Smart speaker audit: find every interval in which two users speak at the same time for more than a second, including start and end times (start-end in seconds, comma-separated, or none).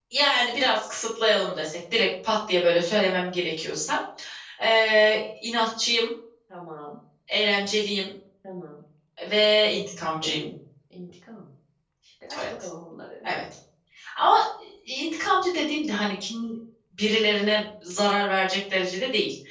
none